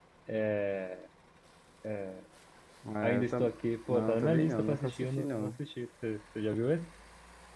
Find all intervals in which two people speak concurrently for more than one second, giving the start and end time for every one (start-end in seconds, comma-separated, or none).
3.9-5.5